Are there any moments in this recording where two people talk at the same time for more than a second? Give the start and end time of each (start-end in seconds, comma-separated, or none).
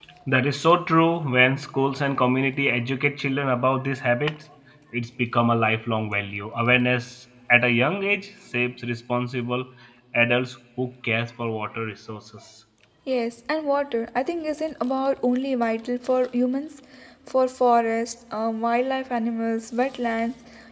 none